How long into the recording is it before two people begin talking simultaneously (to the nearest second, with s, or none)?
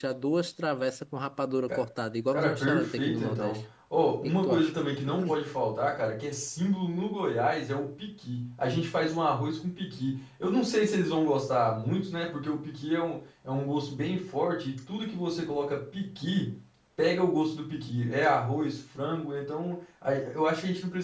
2 s